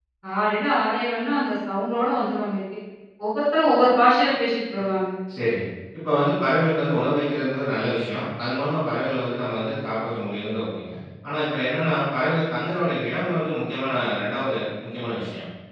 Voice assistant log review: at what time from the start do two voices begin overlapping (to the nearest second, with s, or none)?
none